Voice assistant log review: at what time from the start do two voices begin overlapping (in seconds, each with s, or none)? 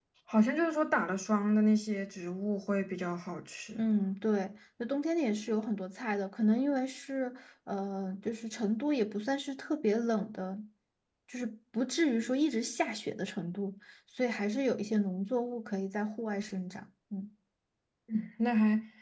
none